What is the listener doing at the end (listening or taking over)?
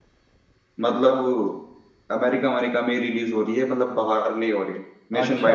taking over